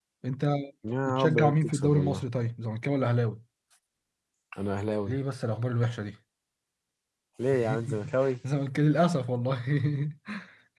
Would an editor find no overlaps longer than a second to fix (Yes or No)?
No